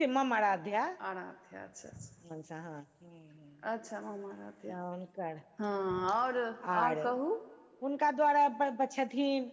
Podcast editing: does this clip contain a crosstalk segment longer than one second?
No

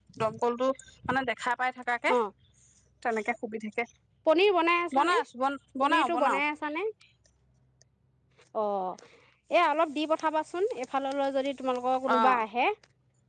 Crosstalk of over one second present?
No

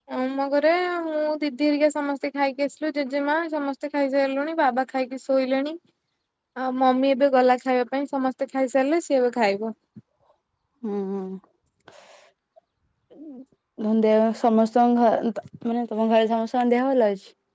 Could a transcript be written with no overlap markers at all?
Yes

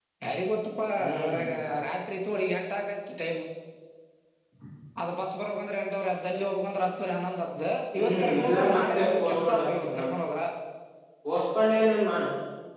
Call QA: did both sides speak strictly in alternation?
No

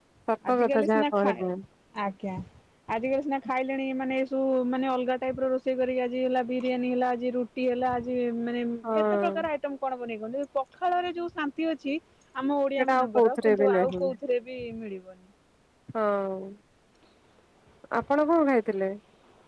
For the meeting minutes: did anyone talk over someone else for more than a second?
Yes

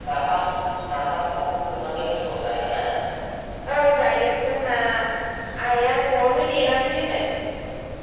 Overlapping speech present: No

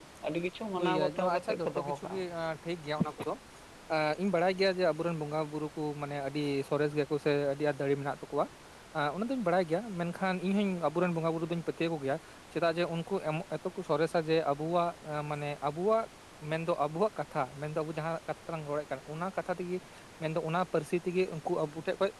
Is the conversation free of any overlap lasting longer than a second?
No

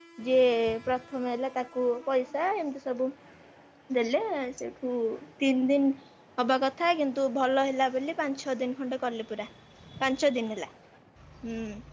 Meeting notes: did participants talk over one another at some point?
No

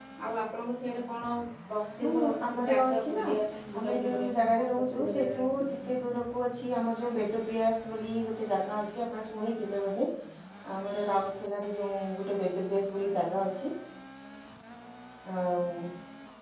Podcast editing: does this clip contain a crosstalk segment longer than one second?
Yes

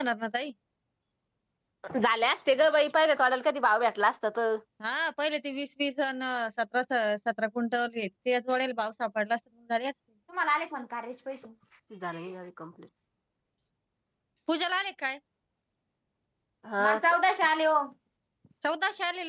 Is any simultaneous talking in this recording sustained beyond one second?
No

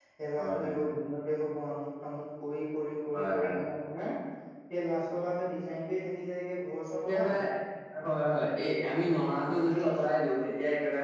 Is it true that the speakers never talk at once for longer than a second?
Yes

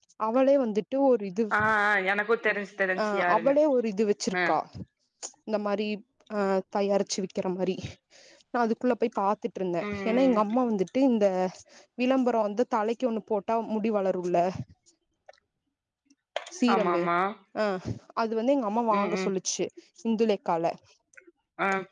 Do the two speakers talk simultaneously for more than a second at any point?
No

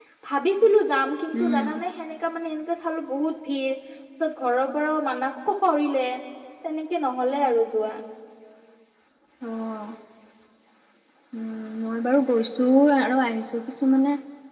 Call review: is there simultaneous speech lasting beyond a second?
No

